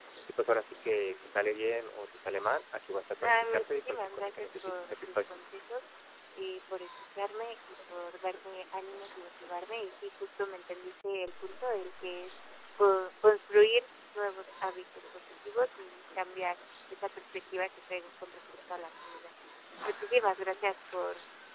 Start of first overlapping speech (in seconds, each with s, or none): 3.2 s